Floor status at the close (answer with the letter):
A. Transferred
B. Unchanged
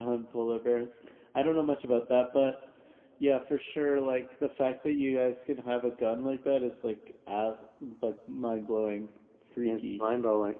A